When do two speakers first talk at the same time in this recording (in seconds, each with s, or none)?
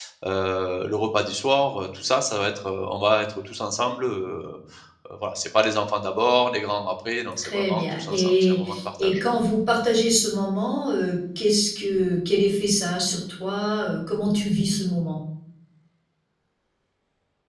7.4 s